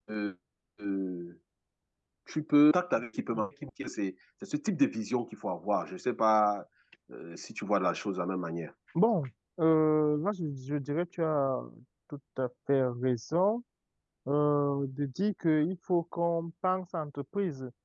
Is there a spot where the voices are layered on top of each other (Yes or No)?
No